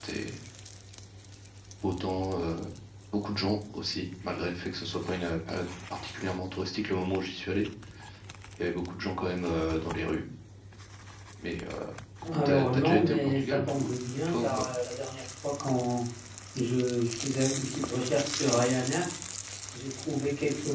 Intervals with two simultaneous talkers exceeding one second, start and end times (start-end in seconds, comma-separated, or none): 12.4-13.9